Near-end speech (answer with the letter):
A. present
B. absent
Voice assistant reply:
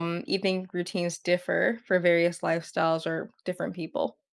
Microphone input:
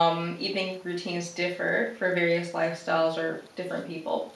B